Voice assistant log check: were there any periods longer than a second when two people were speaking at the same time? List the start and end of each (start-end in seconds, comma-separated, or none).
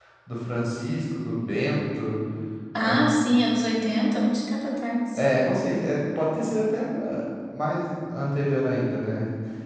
none